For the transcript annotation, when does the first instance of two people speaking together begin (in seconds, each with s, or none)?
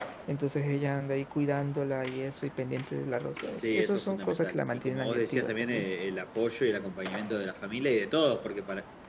3.6 s